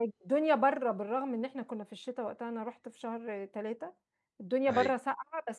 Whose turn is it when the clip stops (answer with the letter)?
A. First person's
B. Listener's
A